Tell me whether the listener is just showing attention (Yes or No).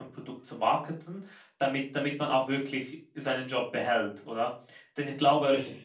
Yes